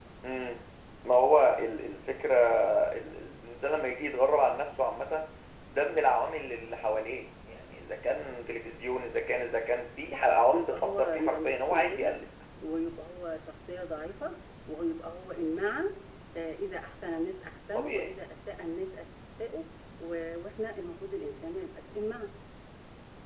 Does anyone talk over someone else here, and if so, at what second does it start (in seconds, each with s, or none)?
10.5 s